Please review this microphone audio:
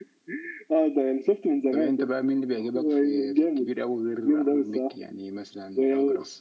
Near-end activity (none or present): none